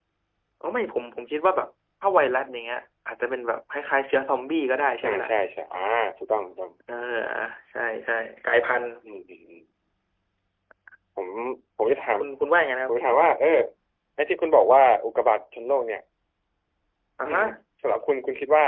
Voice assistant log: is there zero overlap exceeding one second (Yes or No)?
Yes